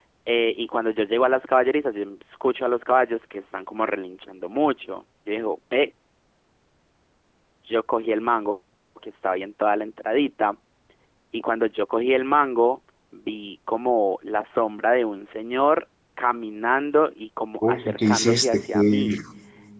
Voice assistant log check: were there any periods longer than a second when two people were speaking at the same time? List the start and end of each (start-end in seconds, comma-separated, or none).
17.6-19.1